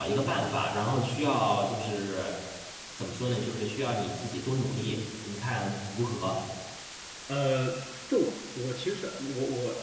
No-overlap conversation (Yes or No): Yes